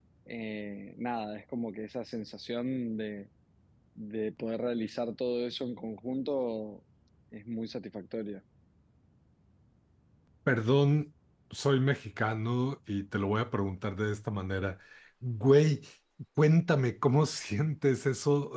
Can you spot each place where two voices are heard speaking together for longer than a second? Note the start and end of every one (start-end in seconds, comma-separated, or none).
none